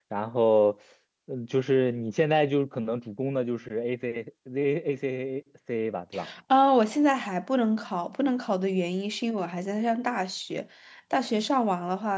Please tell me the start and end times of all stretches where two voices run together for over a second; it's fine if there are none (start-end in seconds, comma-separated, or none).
none